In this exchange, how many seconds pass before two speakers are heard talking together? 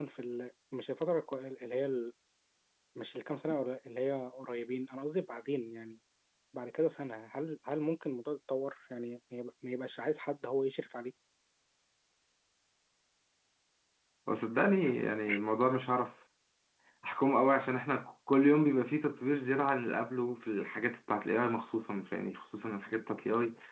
none

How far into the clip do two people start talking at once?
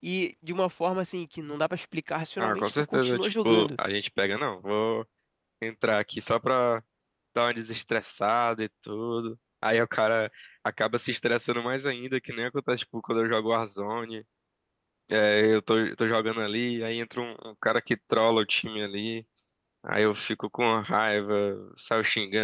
2 s

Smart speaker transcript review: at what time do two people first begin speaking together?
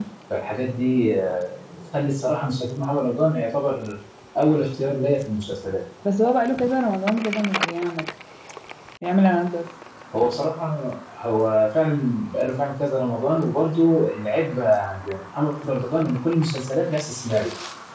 none

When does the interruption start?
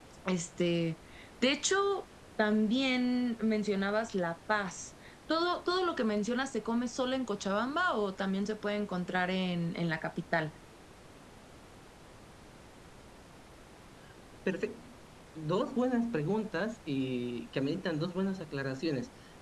none

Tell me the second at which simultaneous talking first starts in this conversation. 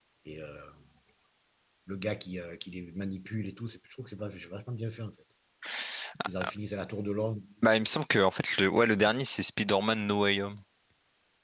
none

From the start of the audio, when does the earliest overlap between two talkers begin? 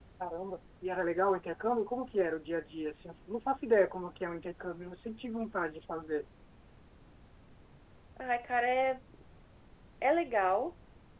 none

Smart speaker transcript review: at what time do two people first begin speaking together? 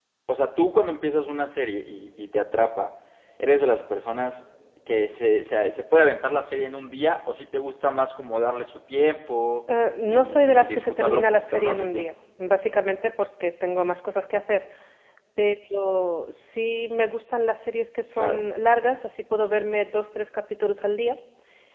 10 s

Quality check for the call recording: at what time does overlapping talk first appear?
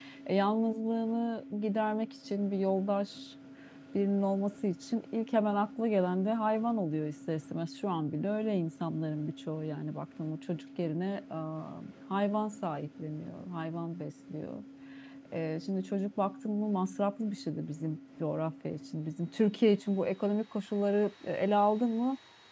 none

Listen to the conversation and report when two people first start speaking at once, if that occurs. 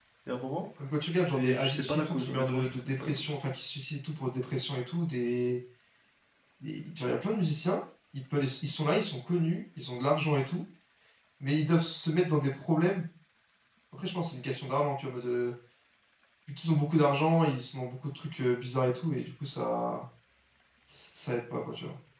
1 s

